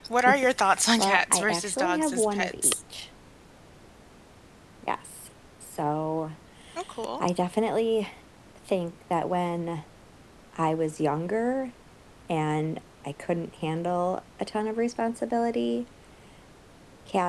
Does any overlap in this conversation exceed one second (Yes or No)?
Yes